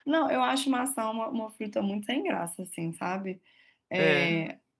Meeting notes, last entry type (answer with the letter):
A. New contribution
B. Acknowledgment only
B